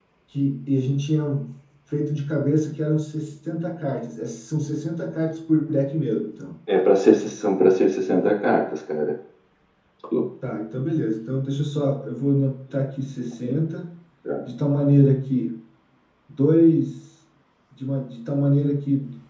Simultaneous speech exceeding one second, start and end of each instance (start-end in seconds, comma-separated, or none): none